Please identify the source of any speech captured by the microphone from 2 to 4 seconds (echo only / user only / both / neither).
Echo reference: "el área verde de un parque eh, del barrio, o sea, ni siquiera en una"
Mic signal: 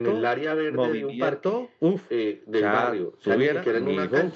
both